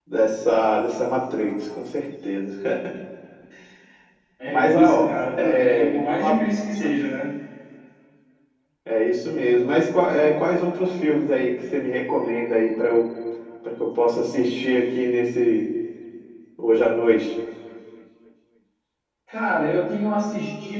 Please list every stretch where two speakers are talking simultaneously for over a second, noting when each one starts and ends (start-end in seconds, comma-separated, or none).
4.5-6.4